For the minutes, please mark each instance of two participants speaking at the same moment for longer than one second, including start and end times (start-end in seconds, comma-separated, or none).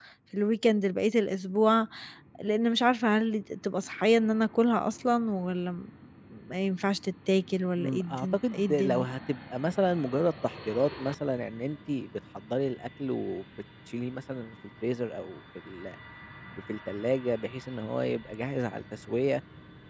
7.8-9.1